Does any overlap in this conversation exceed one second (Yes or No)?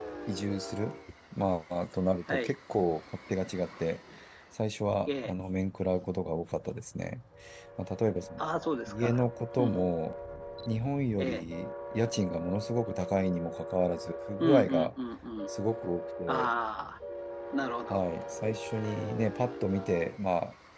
No